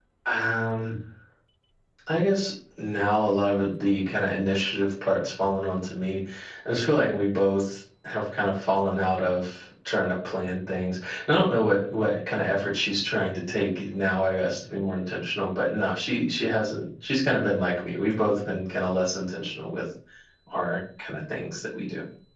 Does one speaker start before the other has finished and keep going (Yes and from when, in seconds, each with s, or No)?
No